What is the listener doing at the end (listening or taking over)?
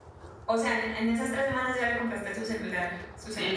taking over